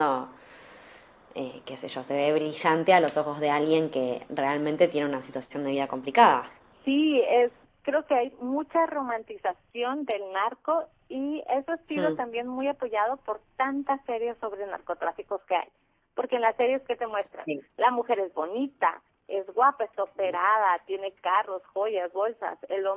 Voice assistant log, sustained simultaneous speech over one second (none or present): none